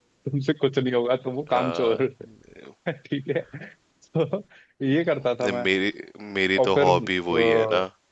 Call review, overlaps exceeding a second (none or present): none